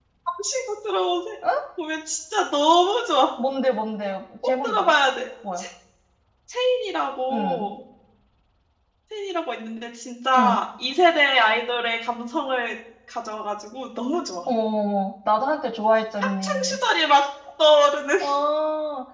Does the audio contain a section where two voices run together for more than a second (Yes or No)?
No